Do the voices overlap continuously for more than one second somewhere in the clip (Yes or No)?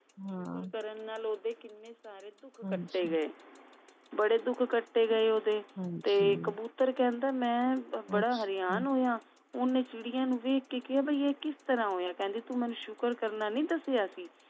No